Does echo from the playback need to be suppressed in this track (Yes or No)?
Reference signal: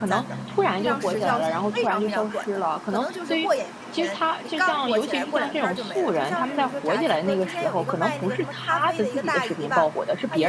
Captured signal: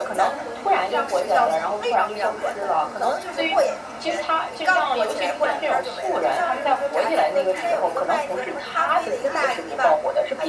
Yes